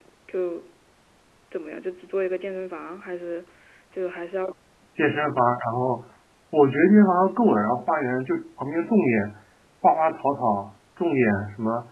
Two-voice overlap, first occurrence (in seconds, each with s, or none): none